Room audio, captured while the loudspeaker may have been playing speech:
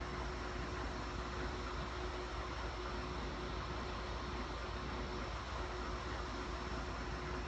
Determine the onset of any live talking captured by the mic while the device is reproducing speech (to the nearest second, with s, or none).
none